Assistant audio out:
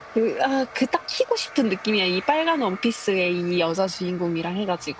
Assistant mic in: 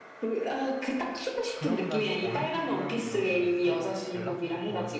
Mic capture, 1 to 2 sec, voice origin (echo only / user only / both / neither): both